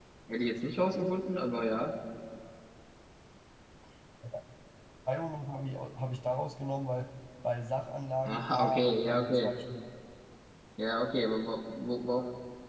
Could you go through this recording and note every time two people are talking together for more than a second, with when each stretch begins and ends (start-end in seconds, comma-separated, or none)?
8.2-9.5